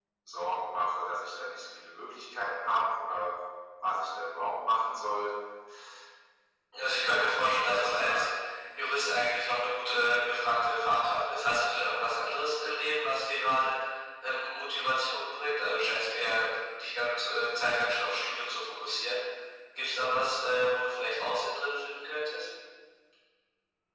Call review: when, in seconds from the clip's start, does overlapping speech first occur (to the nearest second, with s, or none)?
7 s